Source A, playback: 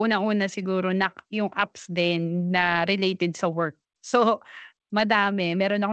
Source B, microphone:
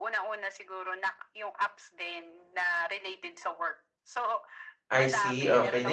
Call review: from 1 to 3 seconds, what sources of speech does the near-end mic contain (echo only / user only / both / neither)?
echo only